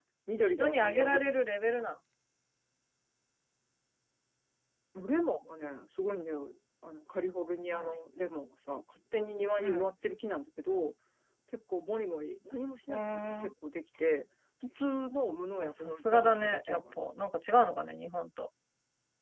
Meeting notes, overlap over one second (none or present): present